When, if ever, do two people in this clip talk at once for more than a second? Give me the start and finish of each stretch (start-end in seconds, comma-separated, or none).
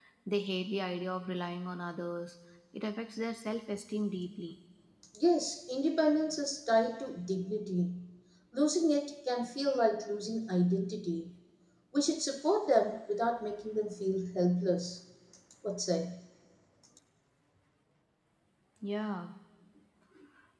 none